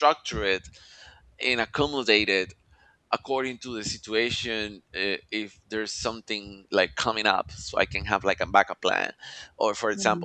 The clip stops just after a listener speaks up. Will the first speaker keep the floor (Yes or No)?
Yes